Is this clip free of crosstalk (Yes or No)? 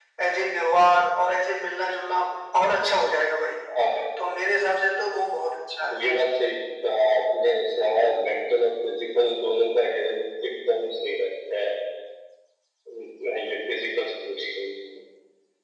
Yes